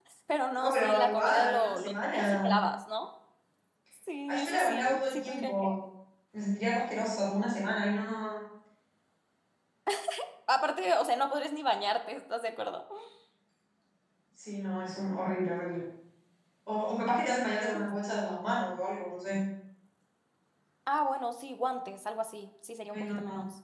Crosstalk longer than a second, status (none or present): present